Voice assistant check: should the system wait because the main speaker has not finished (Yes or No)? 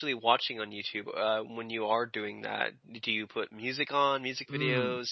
No